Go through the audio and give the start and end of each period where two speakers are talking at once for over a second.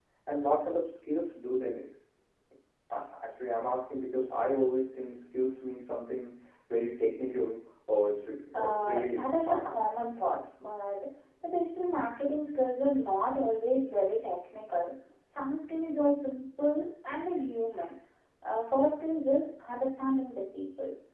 8.2-9.9

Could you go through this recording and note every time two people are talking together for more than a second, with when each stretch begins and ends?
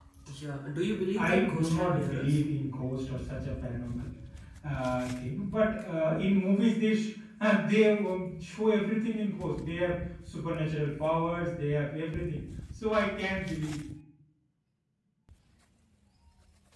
1.1-2.4

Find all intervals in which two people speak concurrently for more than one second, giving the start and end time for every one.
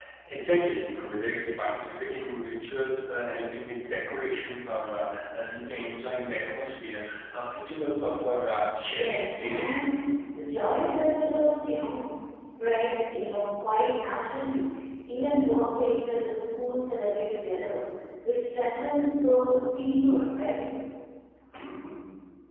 8.8-10.0

